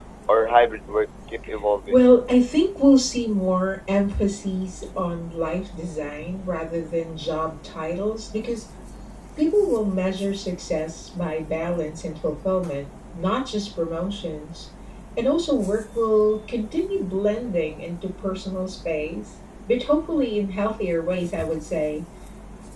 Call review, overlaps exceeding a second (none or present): none